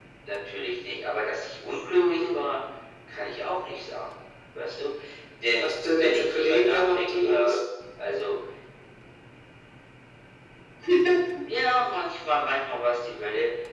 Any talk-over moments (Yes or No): Yes